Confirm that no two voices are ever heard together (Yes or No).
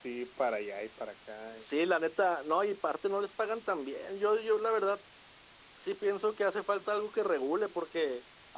Yes